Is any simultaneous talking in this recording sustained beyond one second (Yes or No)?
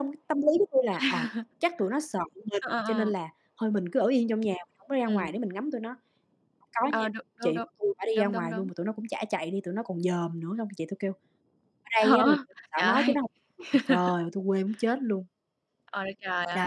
No